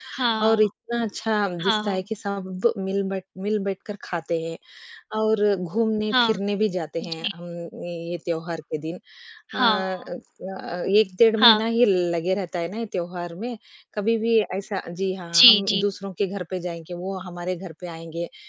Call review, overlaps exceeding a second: none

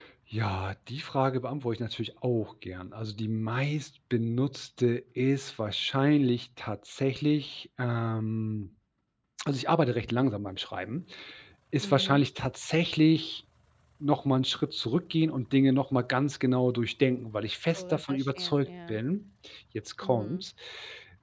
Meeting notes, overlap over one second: present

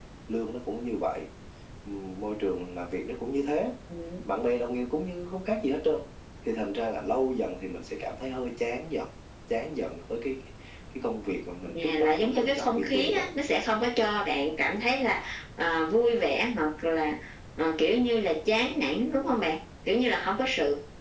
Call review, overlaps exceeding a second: present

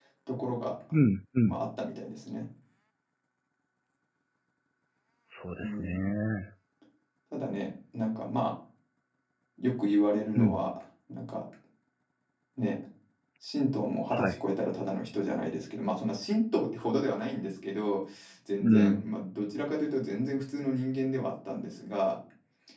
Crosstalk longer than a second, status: none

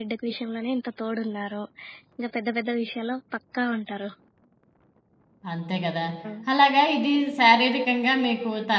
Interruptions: none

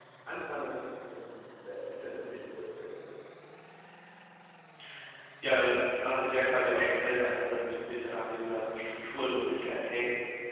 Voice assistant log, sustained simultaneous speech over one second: none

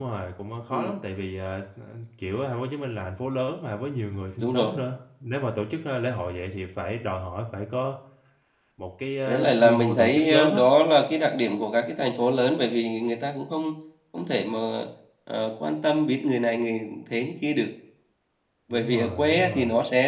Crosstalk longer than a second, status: present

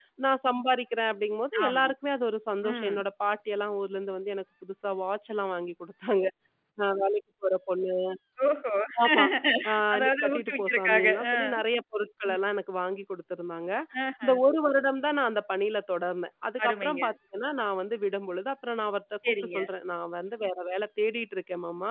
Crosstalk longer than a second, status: present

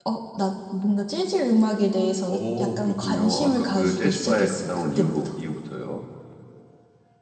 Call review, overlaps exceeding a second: present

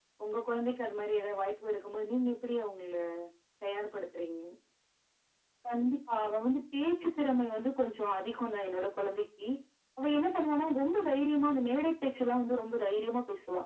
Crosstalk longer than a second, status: none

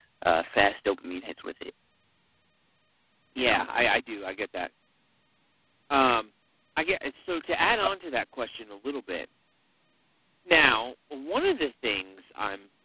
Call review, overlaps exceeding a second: none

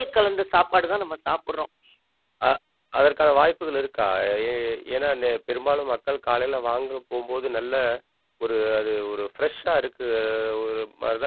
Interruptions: none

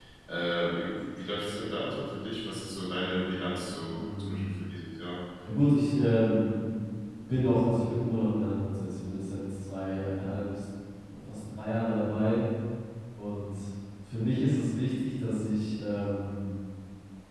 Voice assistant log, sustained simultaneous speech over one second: none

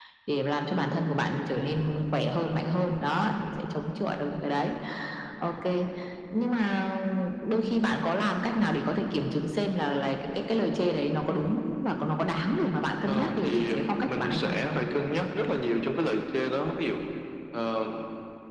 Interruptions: present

